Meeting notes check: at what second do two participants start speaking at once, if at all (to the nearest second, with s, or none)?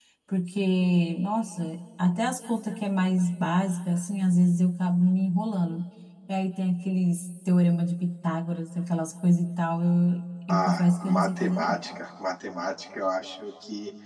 10 s